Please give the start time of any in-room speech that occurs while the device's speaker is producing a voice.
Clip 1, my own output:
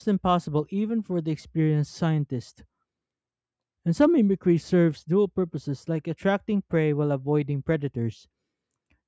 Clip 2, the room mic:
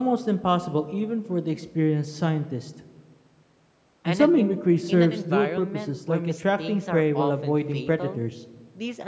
4.0 s

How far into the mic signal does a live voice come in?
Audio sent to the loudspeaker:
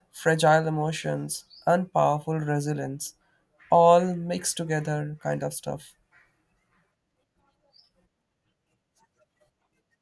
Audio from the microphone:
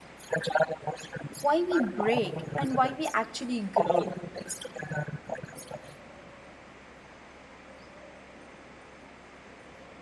1.4 s

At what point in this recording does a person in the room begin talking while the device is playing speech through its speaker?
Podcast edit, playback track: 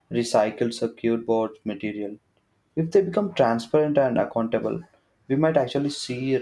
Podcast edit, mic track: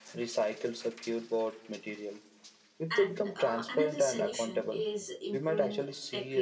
2.9 s

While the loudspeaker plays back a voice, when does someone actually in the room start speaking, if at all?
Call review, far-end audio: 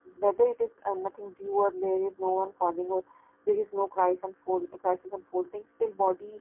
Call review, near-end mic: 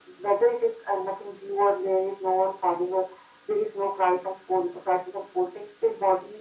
none

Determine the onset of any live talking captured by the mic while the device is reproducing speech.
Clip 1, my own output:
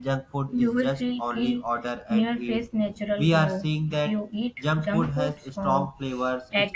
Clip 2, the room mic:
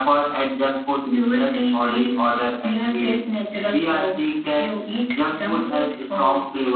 none

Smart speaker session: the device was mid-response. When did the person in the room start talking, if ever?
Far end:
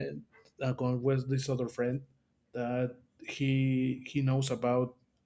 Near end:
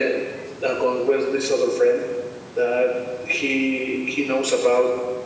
none

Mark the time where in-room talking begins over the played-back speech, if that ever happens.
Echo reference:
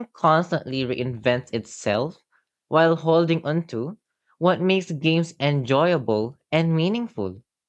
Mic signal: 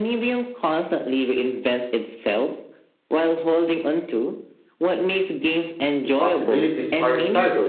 6.0 s

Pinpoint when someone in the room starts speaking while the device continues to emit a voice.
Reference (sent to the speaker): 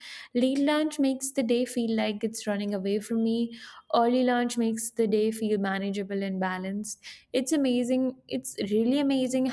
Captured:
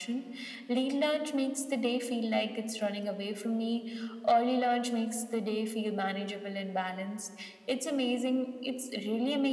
none

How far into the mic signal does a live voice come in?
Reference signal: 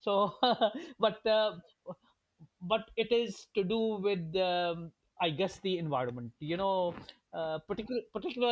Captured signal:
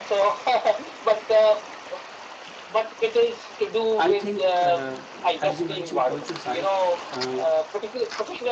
4.0 s

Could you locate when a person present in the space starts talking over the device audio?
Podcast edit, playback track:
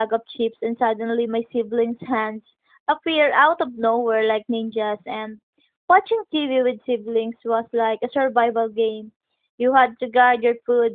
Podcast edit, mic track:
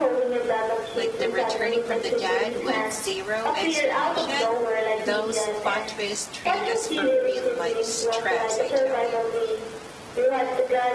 0.9 s

